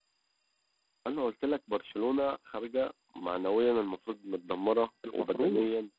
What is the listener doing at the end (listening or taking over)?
listening